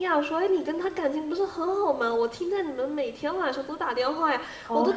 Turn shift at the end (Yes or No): No